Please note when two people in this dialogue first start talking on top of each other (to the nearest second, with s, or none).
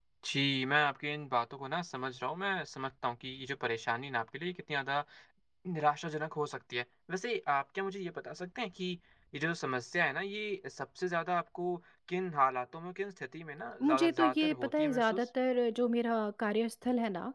14 s